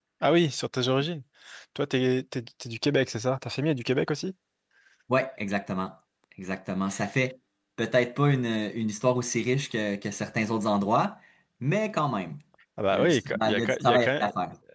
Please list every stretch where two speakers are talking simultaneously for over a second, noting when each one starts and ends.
12.9-14.2

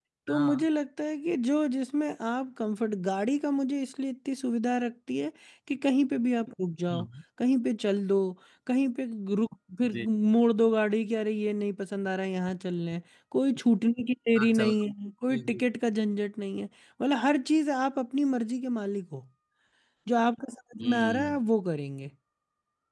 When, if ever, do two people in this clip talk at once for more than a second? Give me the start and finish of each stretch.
none

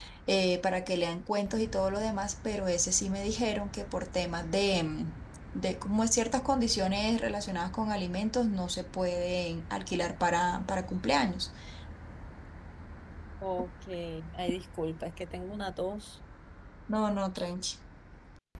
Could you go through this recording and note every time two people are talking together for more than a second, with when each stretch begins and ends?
none

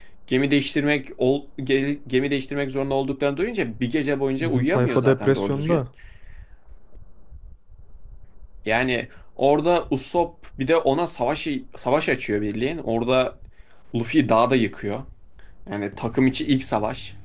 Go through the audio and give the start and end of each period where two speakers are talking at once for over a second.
4.4-5.8

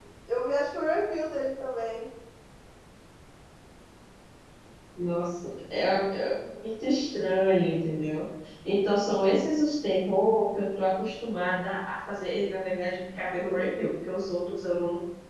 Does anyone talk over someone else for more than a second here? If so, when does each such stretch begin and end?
none

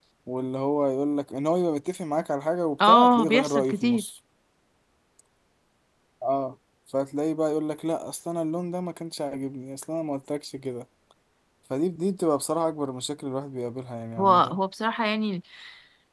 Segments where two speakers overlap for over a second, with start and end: 2.8-4.0

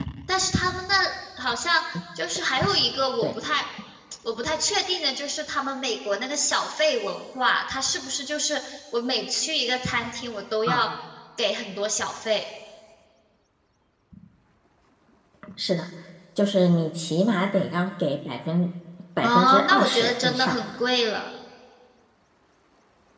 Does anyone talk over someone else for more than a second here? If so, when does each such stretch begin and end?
19.2-20.6

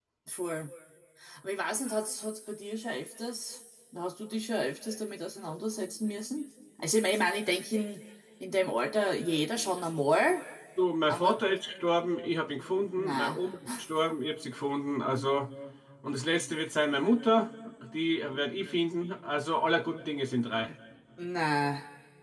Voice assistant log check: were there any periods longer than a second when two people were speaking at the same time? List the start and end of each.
none

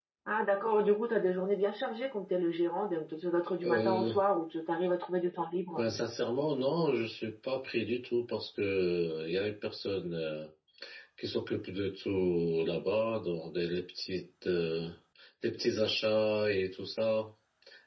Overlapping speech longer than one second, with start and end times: none

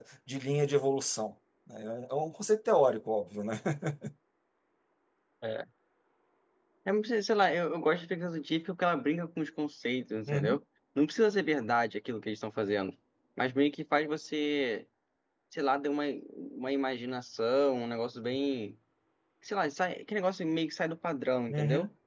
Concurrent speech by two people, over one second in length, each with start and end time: none

